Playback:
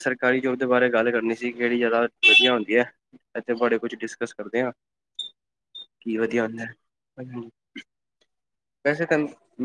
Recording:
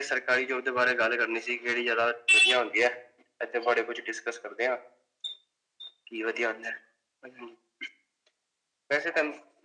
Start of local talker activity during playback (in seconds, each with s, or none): none